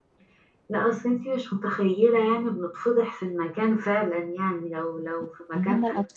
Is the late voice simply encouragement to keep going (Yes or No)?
No